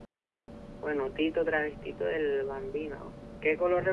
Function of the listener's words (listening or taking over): listening